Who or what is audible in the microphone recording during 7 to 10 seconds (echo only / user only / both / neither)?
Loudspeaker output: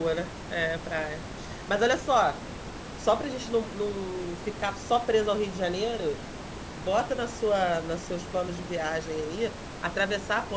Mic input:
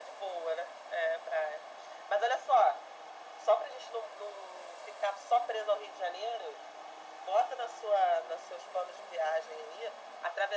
echo only